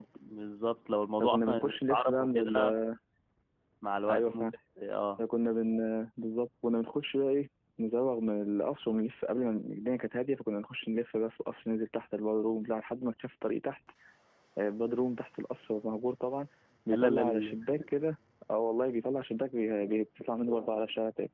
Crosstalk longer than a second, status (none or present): present